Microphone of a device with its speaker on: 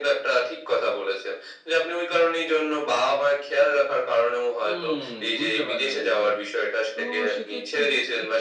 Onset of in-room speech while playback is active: 5 s

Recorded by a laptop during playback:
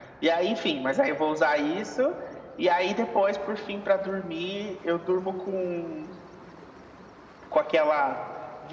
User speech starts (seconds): none

